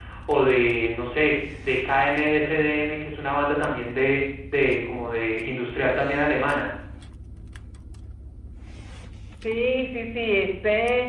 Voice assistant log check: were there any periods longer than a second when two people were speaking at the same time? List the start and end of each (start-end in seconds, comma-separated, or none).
none